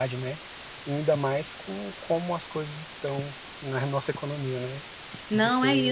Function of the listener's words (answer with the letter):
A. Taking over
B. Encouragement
A